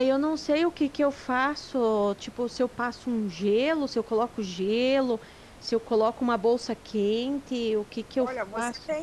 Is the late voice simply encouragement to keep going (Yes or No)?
No